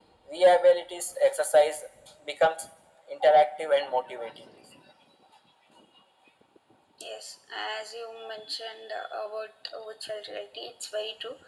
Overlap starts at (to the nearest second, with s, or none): none